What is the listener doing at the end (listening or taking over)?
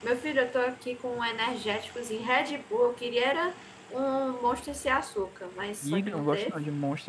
taking over